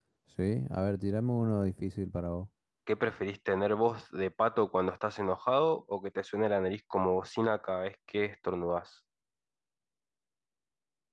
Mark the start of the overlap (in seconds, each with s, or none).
none